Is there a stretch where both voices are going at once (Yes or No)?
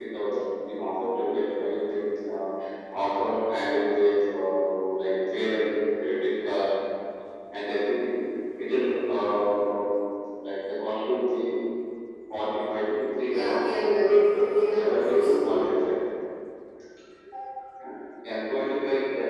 Yes